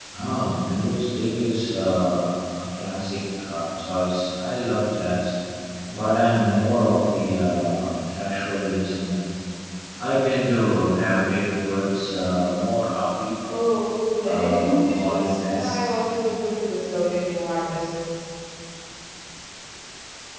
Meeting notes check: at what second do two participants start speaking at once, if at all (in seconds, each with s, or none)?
14.2 s